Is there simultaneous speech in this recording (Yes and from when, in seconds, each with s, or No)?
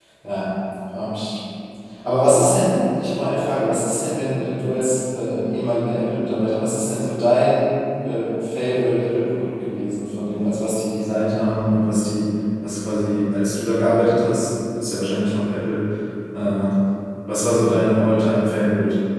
No